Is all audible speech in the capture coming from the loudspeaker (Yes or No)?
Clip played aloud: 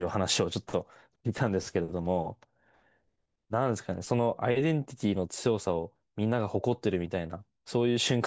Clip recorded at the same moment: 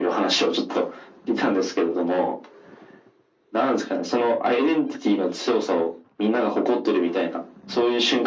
Yes